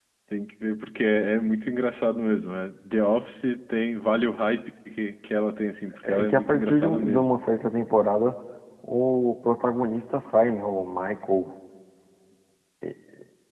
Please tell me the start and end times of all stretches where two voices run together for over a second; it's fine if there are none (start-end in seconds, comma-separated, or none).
6.0-7.4